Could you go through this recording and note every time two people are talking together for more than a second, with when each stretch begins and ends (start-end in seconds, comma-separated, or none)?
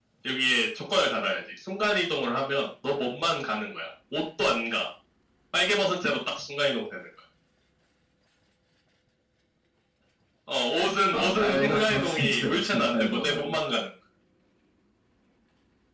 11.1-13.5